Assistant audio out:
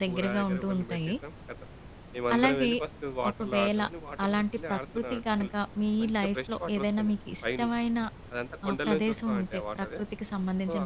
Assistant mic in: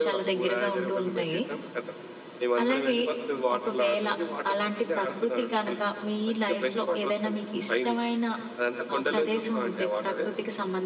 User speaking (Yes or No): No